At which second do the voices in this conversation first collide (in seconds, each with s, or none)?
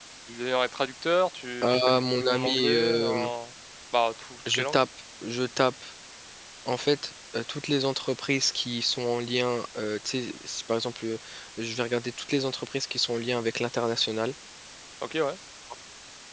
1.7 s